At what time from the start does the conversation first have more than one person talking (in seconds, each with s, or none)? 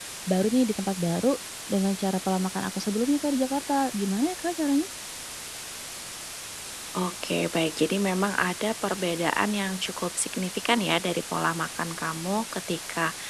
none